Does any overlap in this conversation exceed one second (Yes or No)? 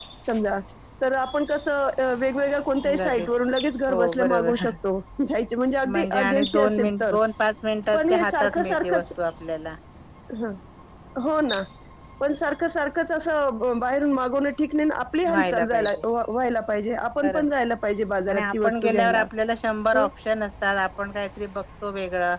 Yes